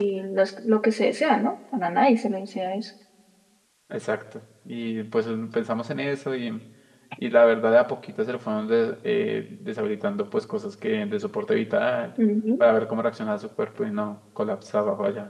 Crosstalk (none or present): none